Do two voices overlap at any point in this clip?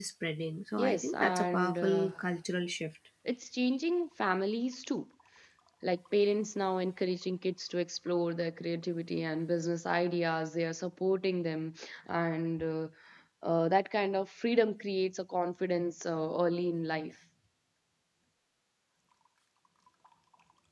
Yes, from 0.8 s

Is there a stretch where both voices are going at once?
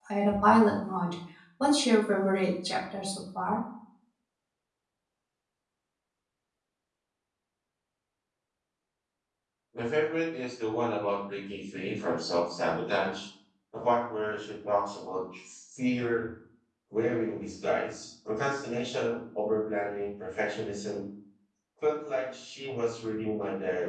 No

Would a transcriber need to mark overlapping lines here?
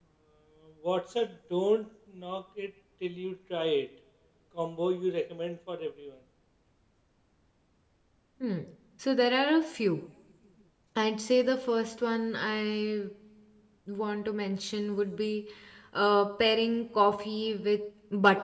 No

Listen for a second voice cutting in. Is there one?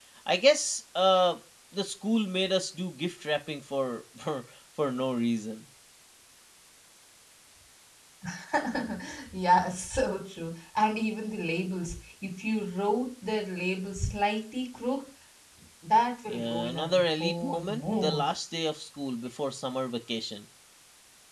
Yes, from 16.3 s

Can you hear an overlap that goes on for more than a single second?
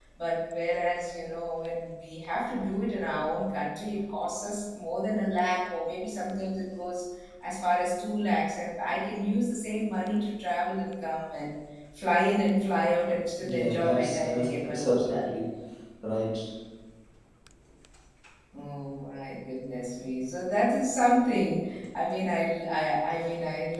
Yes, from 13.4 s

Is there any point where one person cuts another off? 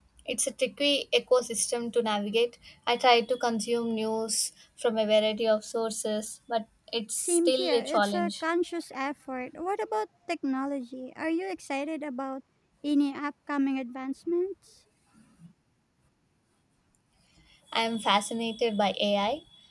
Yes, from 7.2 s

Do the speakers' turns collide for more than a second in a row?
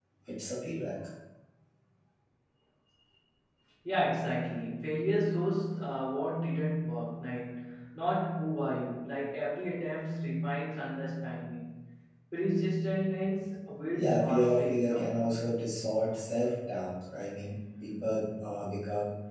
Yes, from 14.0 s

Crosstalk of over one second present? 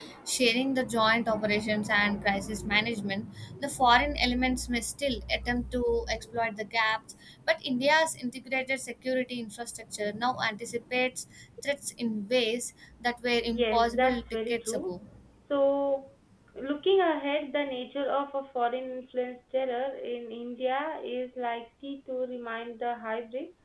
Yes, from 13.4 s

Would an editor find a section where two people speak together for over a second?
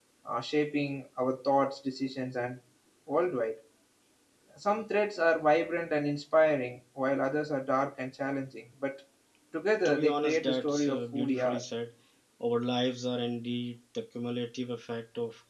Yes, from 9.8 s

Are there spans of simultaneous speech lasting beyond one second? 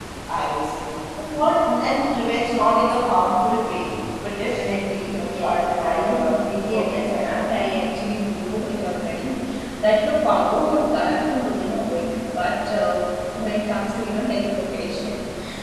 Yes, from 5.1 s

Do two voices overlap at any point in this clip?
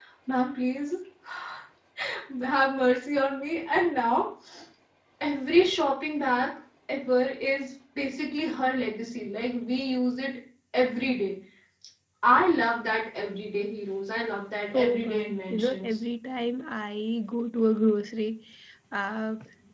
Yes, from 14.7 s

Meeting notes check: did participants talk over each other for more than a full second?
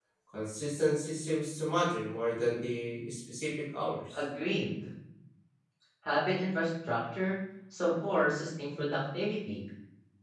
No

